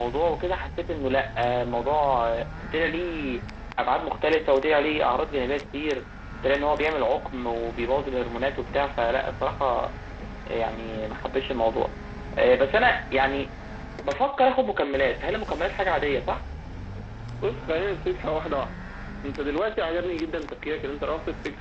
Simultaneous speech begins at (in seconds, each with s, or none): none